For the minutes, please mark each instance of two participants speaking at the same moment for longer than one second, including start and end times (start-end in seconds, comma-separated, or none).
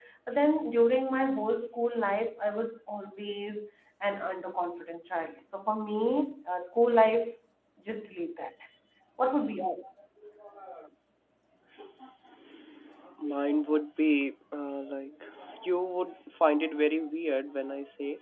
none